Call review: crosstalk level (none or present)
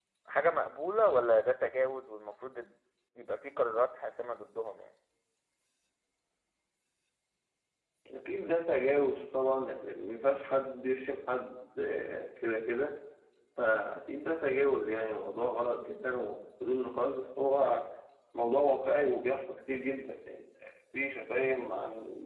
none